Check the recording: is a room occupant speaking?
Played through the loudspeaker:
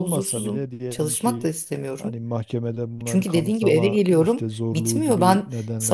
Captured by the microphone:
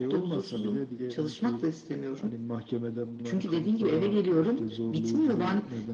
No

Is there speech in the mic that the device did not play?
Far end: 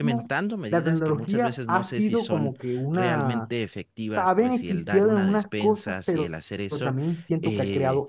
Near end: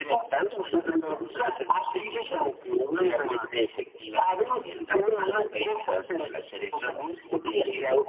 No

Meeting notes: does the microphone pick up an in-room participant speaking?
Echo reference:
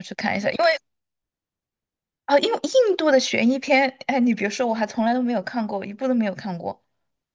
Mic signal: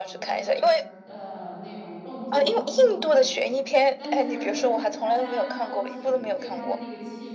Yes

